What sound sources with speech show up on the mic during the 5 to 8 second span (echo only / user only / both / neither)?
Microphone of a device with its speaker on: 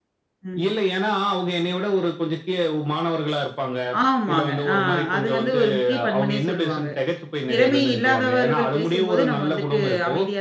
both